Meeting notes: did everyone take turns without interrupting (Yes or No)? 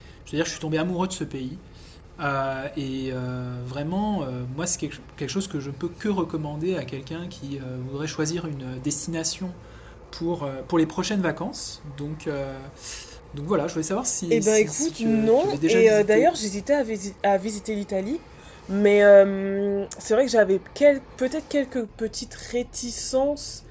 No